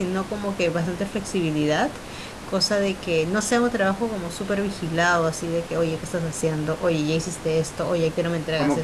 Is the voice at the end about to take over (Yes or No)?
Yes